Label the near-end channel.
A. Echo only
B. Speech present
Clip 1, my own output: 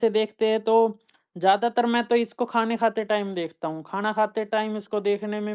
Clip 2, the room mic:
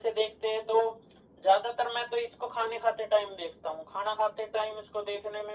A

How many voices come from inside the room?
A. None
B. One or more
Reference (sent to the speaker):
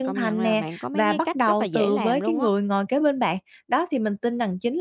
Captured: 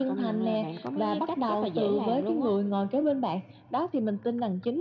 A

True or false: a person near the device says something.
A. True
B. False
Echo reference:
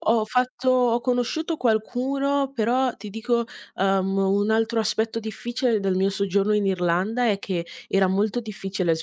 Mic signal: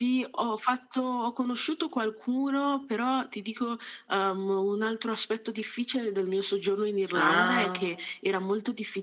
A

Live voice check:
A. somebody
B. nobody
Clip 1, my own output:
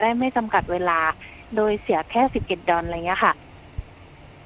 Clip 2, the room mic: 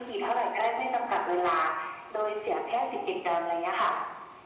B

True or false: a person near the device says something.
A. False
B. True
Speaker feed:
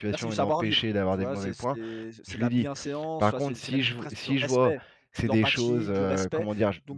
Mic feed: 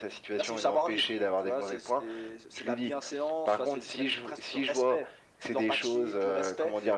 A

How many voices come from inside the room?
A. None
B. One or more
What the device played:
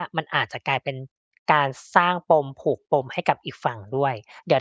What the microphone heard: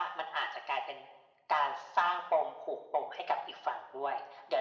A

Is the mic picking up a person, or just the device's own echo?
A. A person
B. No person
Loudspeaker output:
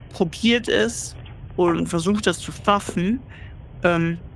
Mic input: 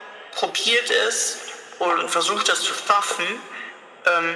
B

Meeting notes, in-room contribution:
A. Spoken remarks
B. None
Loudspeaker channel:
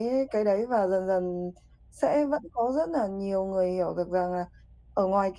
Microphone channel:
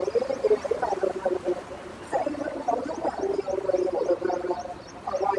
B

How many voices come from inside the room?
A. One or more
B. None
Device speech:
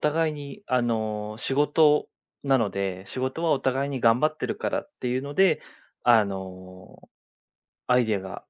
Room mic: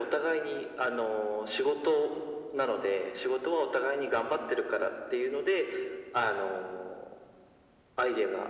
B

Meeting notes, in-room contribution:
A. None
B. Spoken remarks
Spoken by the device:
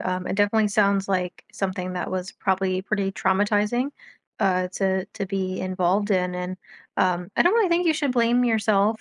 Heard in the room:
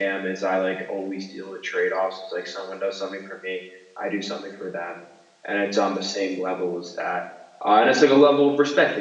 B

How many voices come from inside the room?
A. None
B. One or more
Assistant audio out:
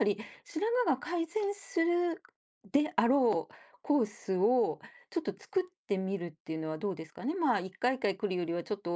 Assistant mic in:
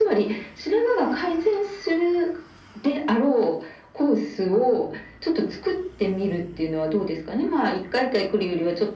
A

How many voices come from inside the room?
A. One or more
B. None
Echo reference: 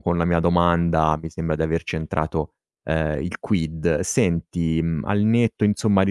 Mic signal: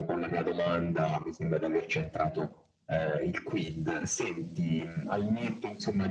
B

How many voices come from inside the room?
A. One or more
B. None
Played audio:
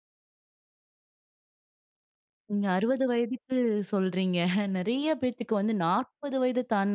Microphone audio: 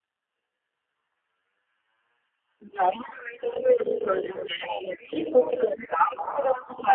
B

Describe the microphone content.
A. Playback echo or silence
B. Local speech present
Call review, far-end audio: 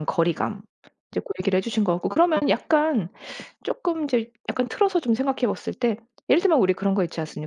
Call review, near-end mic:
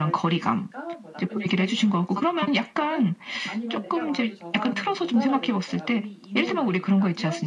B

